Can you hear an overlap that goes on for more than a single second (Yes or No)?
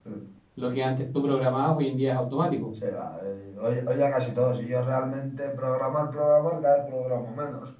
No